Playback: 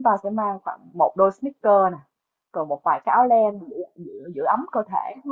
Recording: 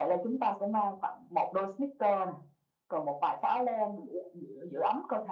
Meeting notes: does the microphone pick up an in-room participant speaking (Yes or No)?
No